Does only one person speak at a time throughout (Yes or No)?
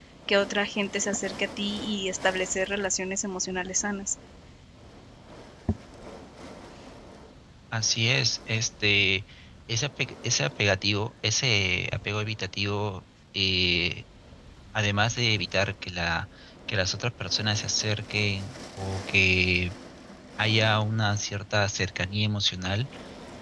Yes